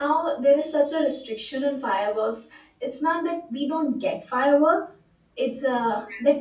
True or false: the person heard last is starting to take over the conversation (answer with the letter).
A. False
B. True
A